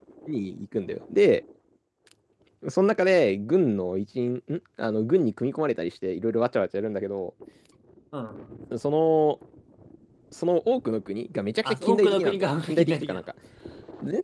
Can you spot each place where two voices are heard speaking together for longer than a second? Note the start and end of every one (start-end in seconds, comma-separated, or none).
11.7-13.3